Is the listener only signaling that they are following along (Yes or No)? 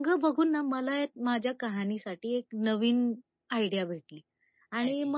Yes